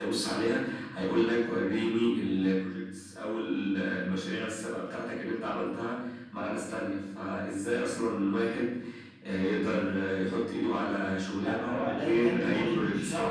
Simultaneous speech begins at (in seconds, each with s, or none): 11.4 s